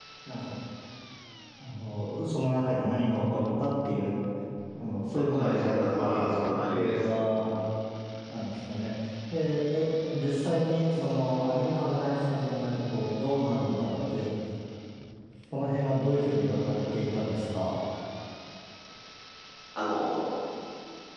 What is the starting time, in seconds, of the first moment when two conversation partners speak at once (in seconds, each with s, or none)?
5.1 s